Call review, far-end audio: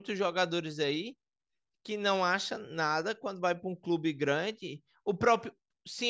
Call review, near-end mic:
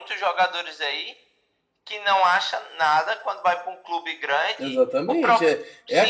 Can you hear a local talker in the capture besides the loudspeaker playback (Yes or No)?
Yes